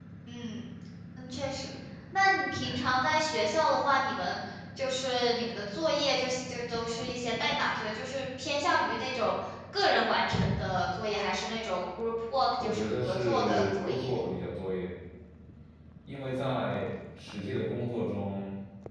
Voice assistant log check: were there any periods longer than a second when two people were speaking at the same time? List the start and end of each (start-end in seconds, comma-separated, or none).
12.6-14.1